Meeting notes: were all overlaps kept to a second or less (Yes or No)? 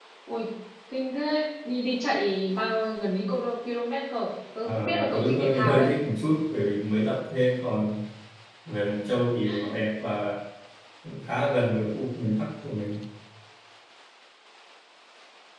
No